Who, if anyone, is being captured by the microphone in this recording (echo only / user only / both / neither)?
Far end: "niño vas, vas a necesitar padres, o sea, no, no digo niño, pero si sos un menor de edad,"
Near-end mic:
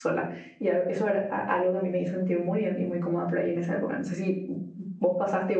user only